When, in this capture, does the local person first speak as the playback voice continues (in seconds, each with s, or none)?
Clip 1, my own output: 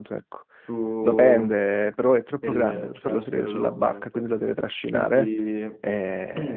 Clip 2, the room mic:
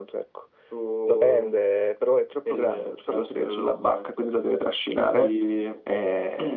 none